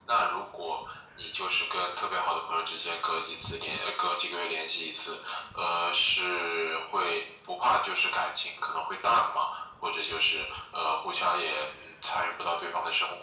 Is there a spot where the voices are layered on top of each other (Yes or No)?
No